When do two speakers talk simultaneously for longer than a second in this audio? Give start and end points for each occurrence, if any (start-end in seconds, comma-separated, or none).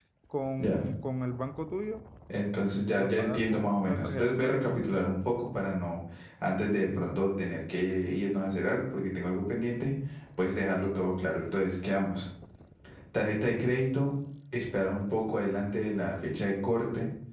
3.0-4.7